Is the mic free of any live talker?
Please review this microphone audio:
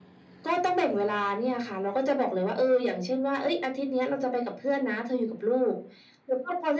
Yes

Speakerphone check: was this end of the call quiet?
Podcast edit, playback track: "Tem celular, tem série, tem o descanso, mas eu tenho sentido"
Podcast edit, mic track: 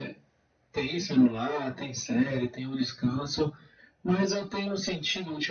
Yes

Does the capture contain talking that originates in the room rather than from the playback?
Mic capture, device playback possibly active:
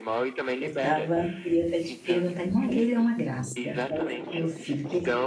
Yes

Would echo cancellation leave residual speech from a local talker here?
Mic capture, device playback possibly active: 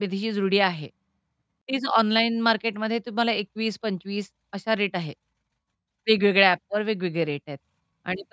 Yes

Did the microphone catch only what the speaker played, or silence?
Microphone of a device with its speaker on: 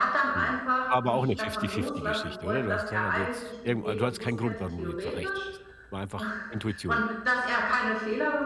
No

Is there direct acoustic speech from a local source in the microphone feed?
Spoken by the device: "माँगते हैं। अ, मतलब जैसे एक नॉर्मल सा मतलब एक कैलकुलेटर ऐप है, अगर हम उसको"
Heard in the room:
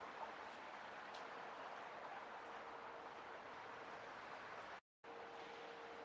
No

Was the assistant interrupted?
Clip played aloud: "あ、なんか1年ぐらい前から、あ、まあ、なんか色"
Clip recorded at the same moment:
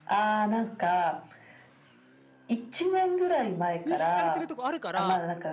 Yes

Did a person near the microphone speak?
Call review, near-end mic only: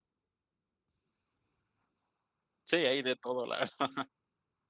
Yes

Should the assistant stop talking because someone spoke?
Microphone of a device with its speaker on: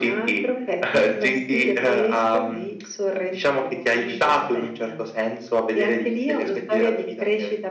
No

